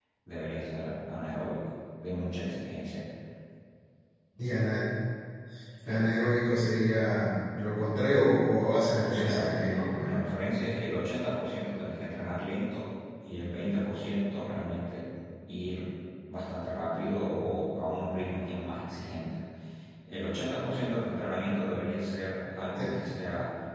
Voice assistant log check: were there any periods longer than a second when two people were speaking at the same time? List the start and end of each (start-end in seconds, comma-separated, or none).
9.0-10.2